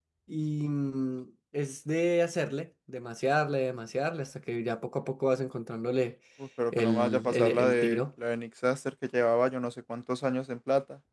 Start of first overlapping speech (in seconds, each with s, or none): 6.7 s